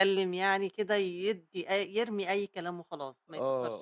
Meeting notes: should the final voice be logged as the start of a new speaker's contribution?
Yes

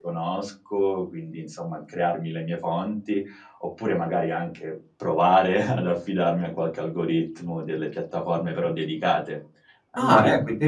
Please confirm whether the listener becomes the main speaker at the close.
Yes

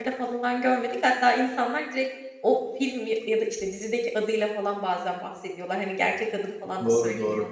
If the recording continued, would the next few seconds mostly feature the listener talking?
Yes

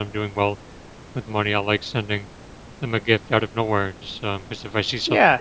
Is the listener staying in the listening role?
No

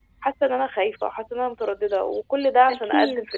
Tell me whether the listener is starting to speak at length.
No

